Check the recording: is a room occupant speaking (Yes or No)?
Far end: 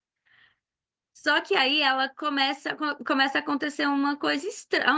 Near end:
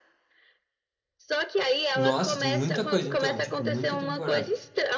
Yes